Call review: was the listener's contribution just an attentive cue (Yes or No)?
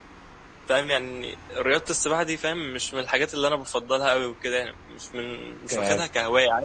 Yes